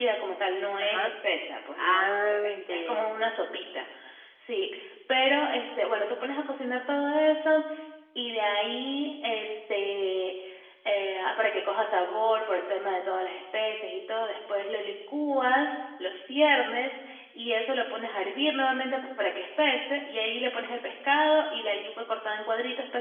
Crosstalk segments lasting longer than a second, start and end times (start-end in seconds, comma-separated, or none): 1.8-3.0